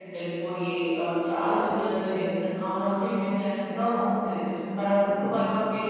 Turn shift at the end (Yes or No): No